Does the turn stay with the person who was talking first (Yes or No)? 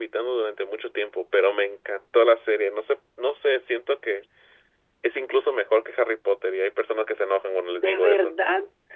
No